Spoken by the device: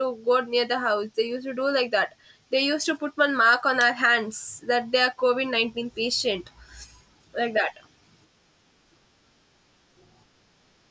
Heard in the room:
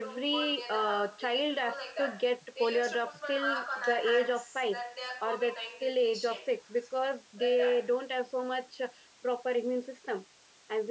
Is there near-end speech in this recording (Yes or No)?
Yes